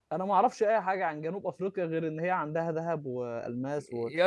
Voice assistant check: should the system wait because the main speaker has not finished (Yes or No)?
No